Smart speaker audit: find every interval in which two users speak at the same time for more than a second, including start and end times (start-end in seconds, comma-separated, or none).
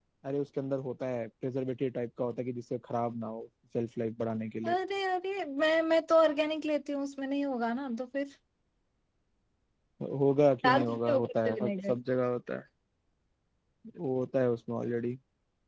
10.6-12.0